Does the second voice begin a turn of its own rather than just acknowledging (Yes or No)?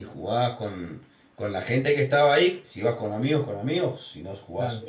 Yes